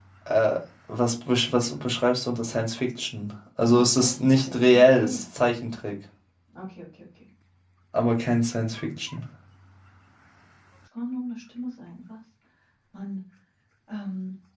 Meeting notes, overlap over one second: present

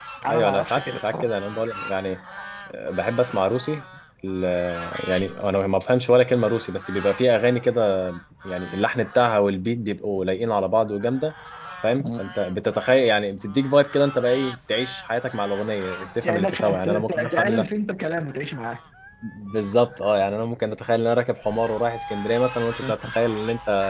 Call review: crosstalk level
present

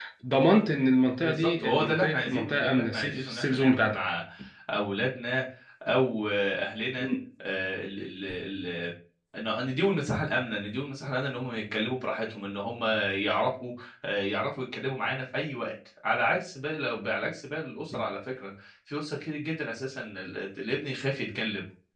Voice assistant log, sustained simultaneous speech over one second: present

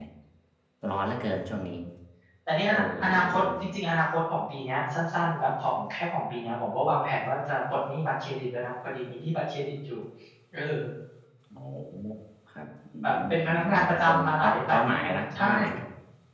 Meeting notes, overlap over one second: present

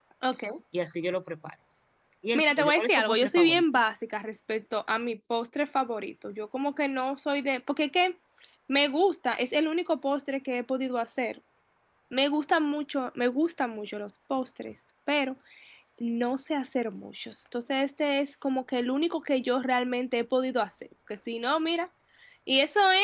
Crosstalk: present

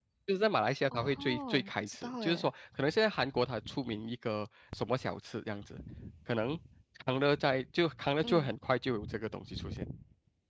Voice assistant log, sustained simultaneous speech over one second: present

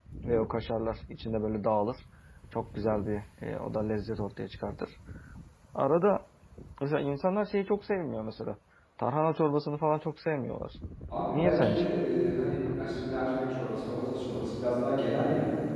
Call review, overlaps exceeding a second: none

